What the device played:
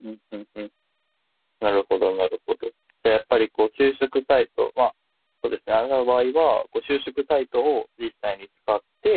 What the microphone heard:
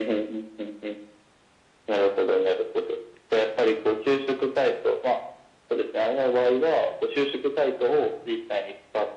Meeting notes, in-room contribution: none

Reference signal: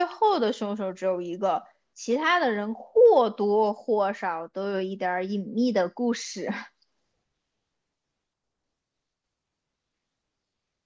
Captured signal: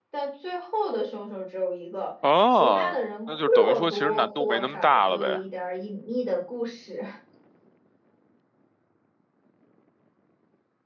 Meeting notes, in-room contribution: present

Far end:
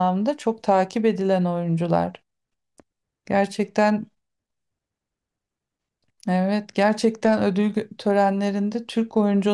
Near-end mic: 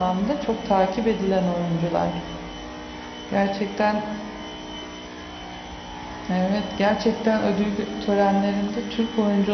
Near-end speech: none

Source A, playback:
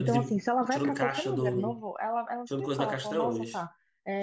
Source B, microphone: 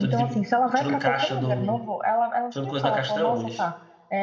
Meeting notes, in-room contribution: none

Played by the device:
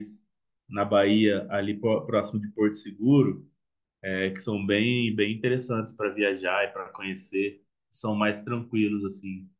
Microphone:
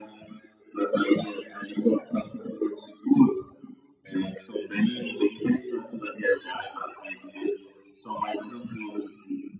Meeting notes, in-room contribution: none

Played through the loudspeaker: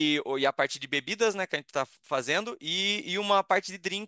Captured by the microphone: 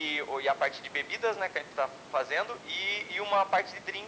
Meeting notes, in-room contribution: none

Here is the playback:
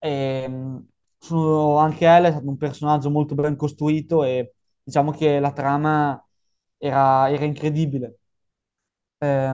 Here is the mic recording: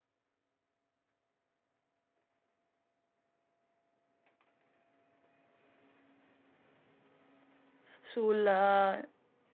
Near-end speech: present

